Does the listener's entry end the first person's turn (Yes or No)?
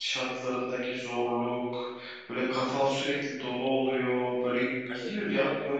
No